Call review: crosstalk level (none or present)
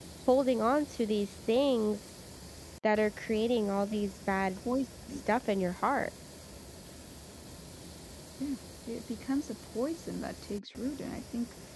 none